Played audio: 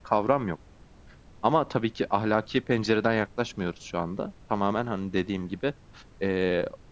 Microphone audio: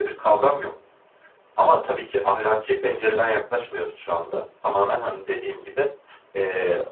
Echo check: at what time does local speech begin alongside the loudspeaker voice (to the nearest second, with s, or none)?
none